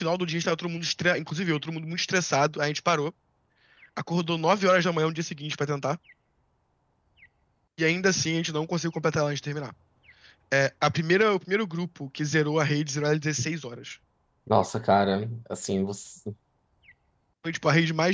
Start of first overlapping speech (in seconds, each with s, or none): none